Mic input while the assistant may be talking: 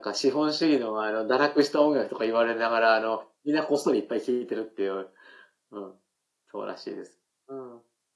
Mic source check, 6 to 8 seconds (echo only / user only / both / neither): echo only